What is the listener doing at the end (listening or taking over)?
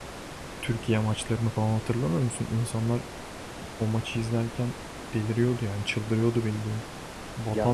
listening